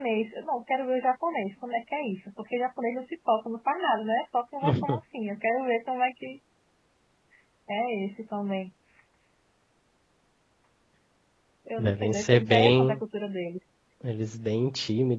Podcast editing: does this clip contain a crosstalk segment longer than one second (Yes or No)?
Yes